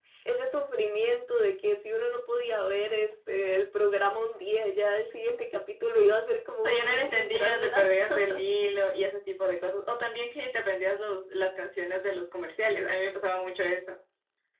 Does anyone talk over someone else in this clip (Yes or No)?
Yes